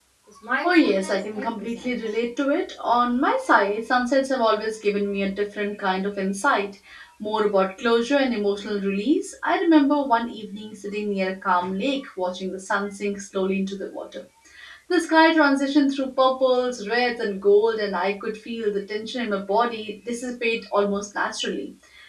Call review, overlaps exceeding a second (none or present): present